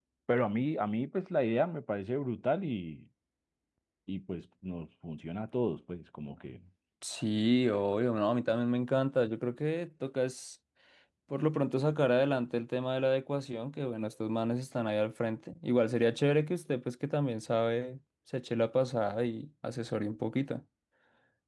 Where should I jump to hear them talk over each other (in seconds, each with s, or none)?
none